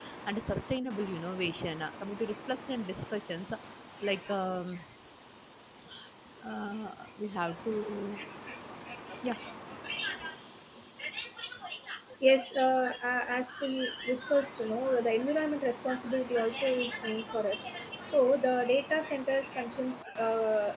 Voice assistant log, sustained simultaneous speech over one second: none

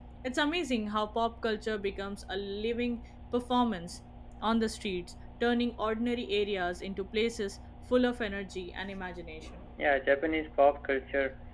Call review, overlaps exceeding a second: none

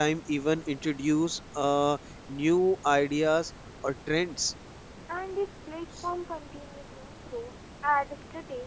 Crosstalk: none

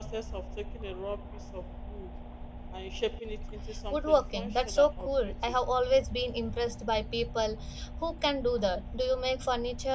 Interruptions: present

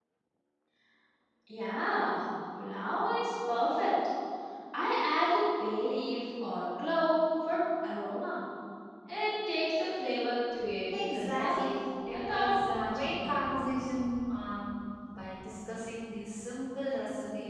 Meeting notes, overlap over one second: present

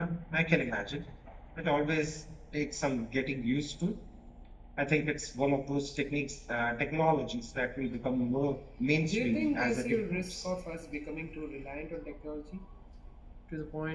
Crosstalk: present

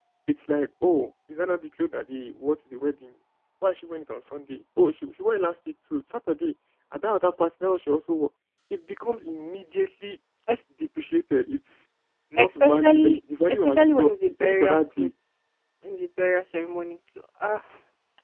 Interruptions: present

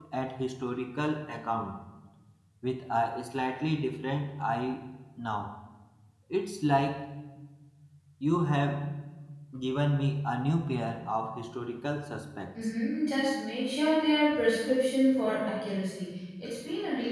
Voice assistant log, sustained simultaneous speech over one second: none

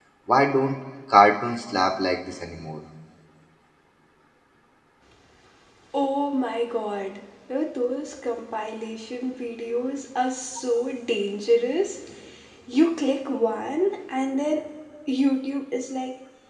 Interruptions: none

